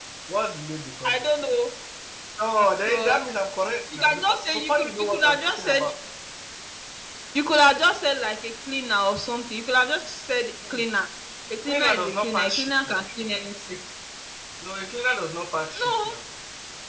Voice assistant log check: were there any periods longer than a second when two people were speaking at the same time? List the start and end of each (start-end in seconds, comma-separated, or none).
4.0-5.8, 11.7-13.0